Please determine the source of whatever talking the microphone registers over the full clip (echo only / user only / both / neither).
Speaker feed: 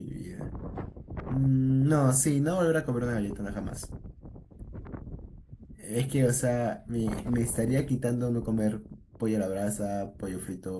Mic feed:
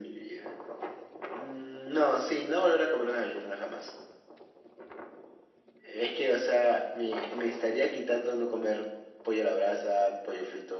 echo only